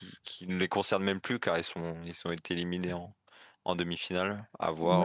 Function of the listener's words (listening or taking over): taking over